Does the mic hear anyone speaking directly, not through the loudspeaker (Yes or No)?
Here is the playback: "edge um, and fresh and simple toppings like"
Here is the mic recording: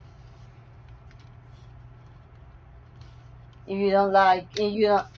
Yes